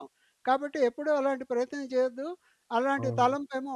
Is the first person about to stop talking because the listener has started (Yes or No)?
No